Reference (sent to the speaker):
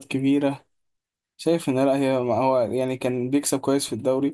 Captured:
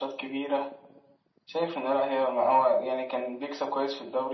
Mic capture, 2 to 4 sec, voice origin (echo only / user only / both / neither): echo only